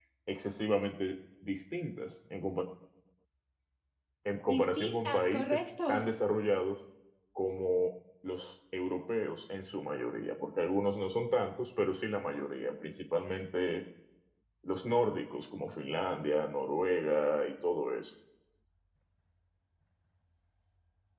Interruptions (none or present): present